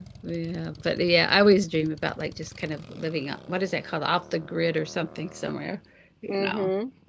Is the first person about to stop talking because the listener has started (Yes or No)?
Yes